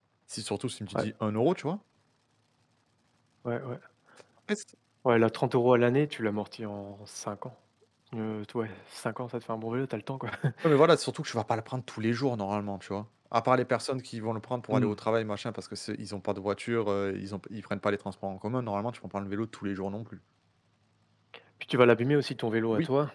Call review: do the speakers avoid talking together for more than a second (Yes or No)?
Yes